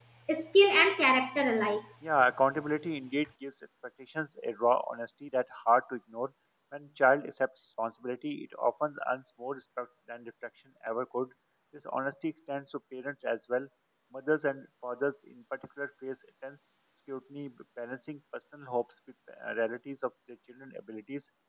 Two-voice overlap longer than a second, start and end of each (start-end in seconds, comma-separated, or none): none